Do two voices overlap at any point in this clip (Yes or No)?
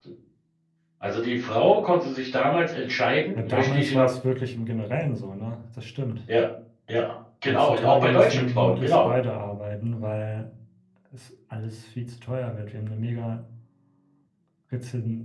Yes